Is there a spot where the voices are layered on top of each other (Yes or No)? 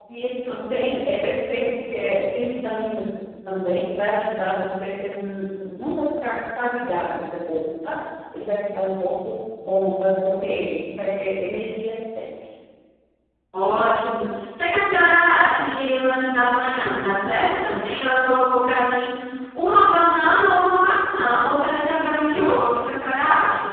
No